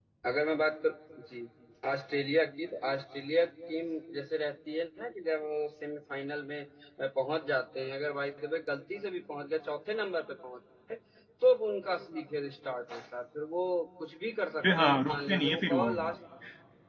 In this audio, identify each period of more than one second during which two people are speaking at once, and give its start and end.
14.6-16.1

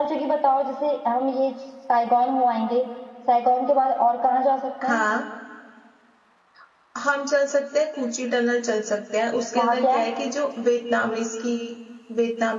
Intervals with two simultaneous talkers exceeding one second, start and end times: none

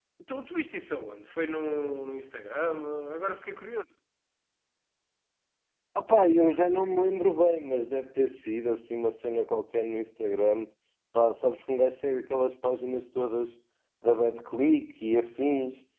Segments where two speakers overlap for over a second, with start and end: none

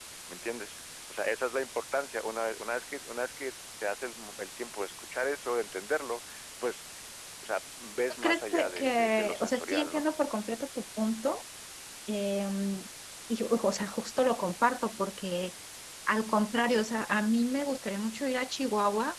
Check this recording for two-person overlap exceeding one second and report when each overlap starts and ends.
8.2-10.1

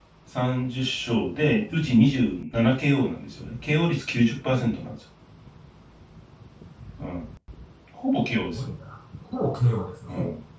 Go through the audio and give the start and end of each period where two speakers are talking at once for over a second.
none

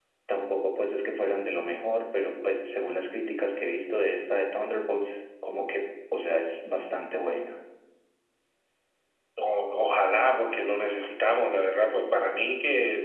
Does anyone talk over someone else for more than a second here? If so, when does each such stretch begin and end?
none

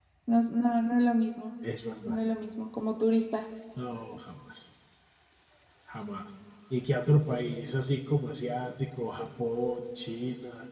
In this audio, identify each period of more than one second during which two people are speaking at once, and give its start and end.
none

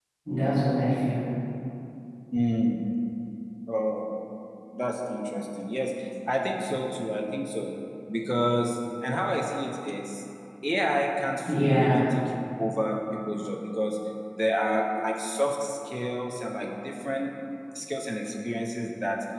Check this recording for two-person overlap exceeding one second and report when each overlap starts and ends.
none

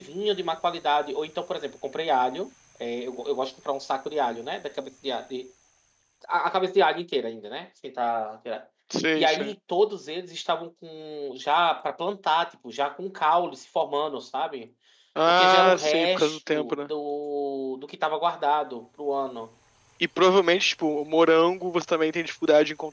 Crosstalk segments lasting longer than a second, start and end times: 15.3-16.9

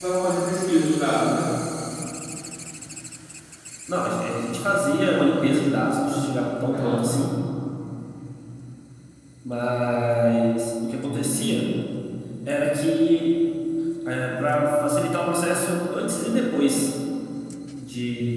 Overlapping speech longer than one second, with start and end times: none

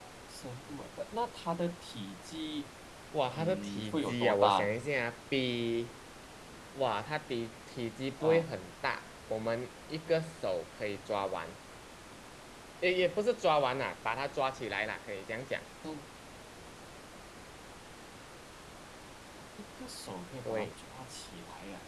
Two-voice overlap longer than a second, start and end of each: 3.4-4.7

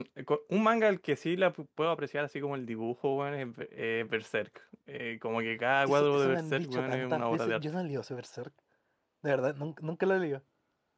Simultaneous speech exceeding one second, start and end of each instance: 5.9-7.6

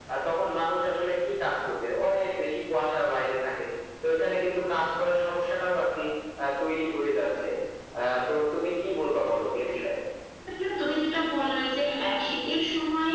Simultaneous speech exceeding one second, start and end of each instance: none

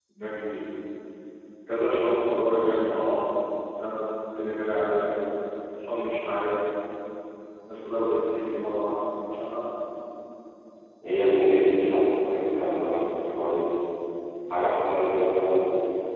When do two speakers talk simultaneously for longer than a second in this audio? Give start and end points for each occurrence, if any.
none

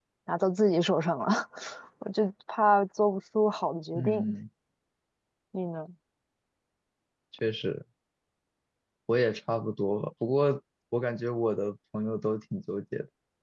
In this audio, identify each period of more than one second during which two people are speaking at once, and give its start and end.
none

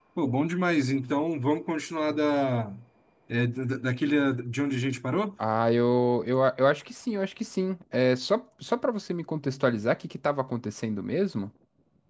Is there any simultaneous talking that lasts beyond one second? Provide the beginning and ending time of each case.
none

